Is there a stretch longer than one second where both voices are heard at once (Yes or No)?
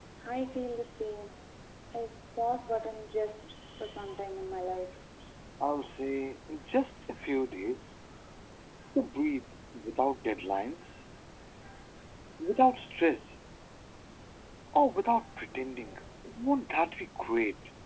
No